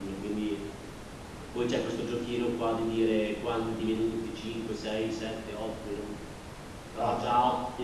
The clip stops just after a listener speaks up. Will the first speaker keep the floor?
Yes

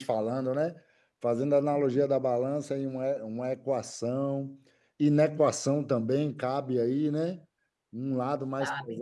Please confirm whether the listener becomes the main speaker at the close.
No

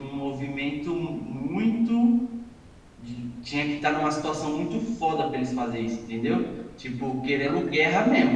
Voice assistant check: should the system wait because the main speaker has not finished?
Yes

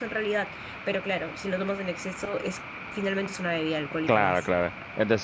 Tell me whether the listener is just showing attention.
No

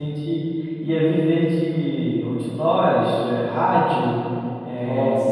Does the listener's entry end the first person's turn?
No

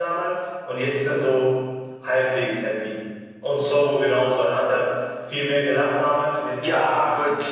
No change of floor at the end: No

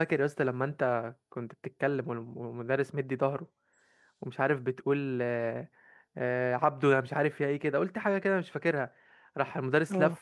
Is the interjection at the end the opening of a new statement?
No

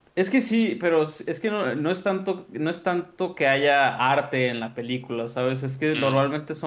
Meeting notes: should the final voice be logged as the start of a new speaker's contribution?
No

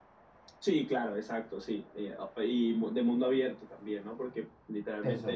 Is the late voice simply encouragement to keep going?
Yes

